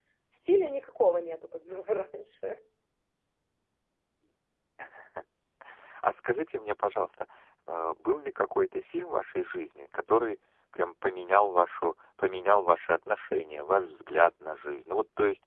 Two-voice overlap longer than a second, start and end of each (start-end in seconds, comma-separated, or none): none